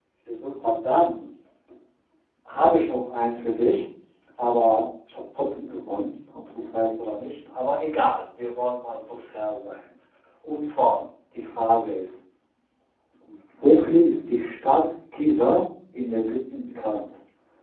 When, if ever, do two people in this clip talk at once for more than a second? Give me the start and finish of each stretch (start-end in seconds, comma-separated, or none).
none